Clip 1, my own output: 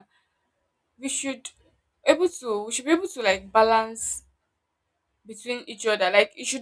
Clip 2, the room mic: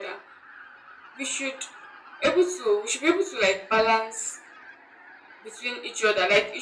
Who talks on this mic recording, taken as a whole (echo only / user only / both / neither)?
echo only